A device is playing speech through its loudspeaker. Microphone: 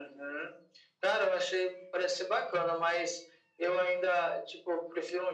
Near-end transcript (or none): none